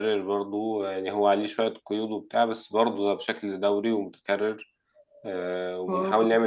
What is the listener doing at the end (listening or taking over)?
listening